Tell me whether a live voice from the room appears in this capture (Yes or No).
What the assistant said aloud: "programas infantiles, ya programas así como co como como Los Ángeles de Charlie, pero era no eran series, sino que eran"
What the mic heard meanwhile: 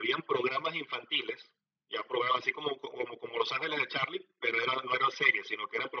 No